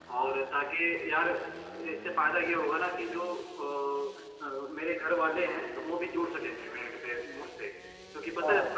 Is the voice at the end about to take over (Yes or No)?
No